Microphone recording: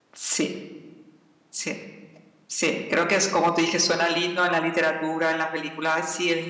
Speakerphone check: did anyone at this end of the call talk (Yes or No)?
Yes